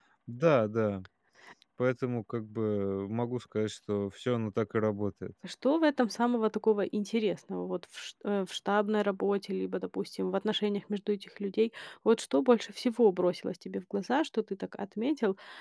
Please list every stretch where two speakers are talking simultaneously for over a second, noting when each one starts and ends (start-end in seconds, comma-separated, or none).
none